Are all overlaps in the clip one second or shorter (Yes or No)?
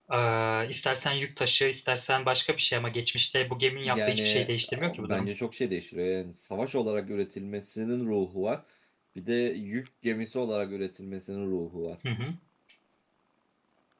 No